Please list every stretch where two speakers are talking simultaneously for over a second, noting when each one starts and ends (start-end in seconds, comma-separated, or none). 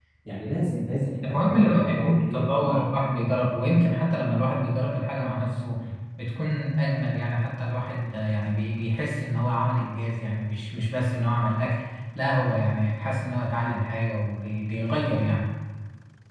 1.2-2.9